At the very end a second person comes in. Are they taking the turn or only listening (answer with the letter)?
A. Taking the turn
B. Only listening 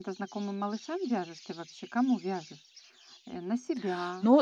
A